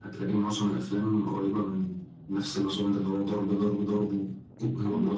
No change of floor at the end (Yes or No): No